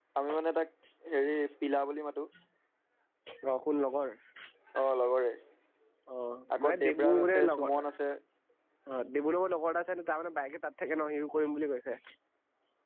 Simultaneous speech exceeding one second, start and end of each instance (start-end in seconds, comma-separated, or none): 6.5-7.8